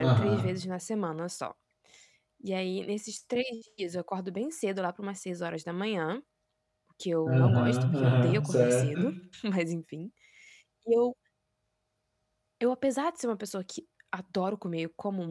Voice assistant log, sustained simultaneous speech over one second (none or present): present